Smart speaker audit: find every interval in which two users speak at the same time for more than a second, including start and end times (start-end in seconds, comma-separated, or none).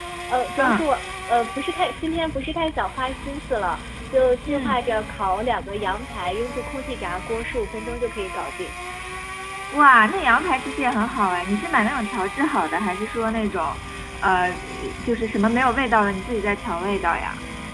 none